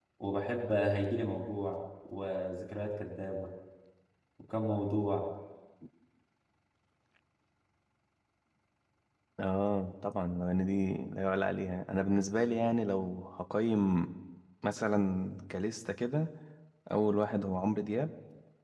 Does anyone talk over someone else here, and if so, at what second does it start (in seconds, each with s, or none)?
none